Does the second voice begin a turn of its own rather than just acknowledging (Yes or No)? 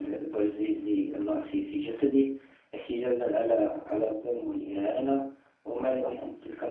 No